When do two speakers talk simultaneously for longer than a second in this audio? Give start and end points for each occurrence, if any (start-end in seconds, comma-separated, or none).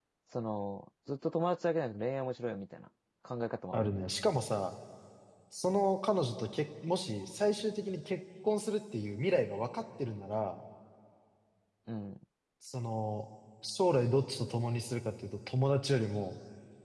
none